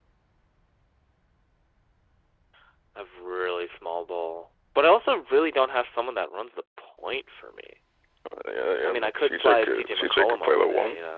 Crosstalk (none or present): present